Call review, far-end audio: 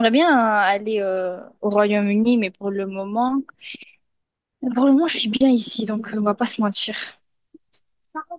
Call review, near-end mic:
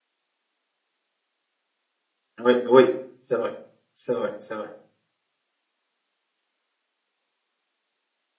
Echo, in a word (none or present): none